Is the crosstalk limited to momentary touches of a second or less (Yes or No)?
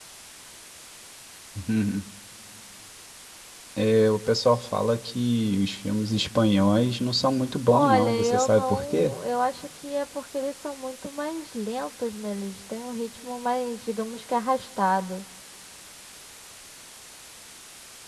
No